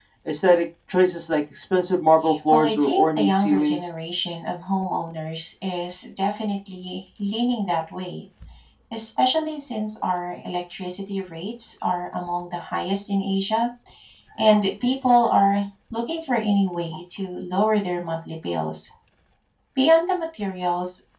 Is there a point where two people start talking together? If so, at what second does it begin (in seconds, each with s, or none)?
2.5 s